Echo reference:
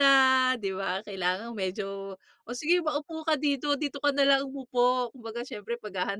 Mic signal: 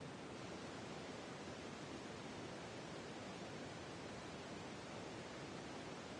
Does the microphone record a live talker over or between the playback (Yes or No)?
No